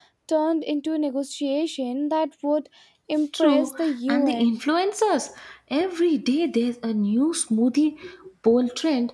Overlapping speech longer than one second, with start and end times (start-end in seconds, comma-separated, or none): 3.4-4.6